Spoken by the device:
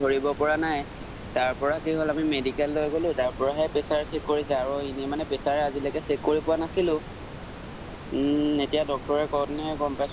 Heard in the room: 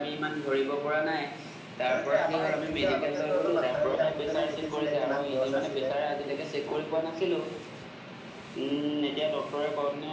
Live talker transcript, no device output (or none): সেয়েটো আমাৰ এইখিনিতে আগতে তঁহতে মাথাউৰিত আহোতেনে দেখিছিলে কিমান গছ আছিলে।